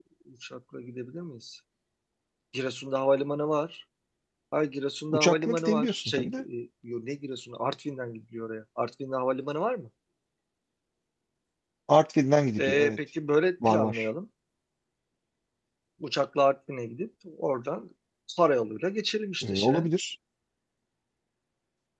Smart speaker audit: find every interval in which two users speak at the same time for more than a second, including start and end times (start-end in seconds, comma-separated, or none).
5.1-6.4